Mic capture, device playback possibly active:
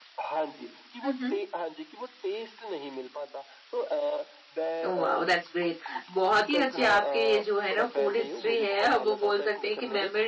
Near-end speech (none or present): present